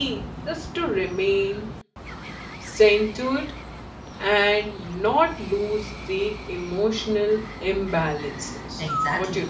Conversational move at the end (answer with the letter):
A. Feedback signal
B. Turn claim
B